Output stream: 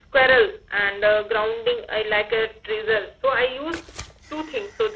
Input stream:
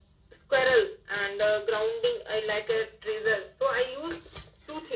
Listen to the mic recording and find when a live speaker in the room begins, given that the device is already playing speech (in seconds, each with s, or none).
none